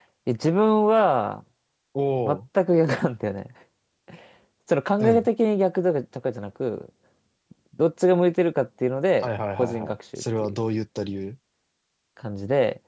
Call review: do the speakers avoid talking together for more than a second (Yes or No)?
No